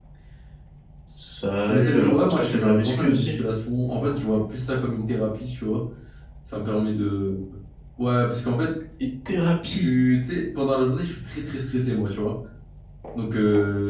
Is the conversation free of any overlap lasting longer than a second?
No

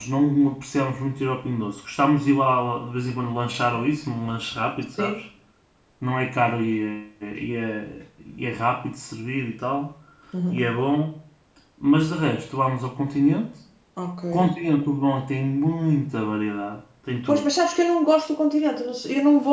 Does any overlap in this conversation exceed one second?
No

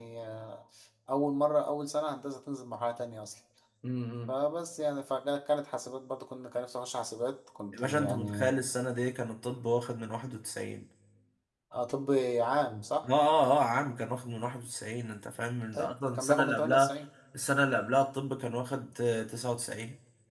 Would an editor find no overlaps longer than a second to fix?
No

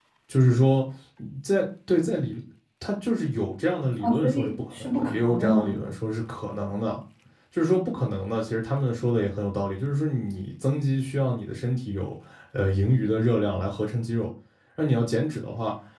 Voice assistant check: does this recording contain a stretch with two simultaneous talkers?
Yes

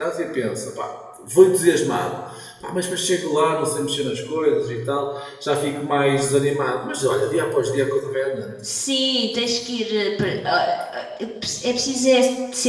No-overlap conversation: Yes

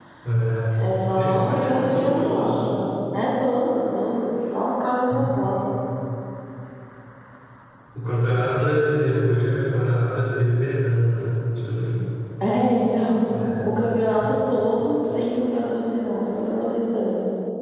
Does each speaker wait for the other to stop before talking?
No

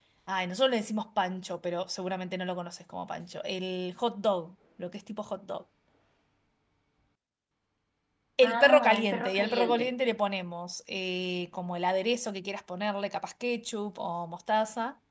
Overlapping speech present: Yes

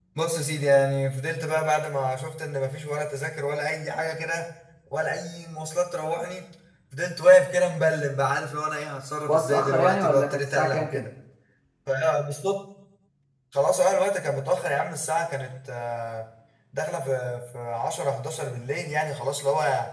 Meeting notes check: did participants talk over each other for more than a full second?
Yes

